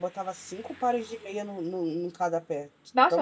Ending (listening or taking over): taking over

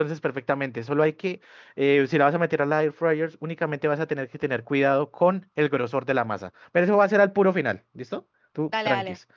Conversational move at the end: listening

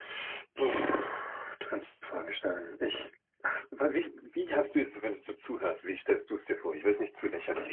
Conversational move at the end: taking over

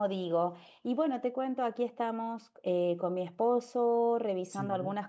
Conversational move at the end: listening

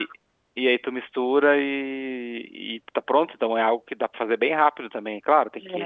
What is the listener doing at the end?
listening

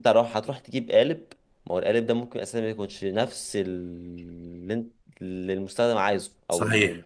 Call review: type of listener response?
taking over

